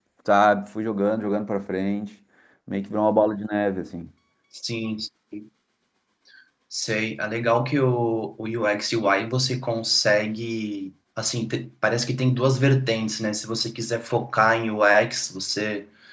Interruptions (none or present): none